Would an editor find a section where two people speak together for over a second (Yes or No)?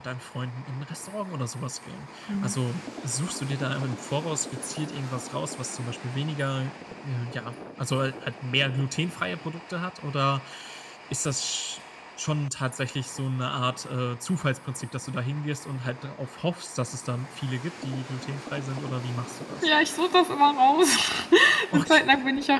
No